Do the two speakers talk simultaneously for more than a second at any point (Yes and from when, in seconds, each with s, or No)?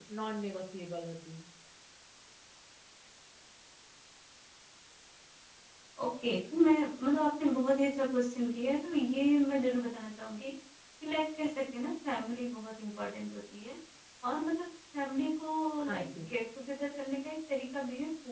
No